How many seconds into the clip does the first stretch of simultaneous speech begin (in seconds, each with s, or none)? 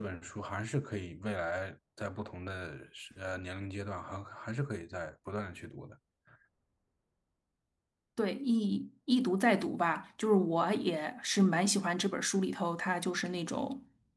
none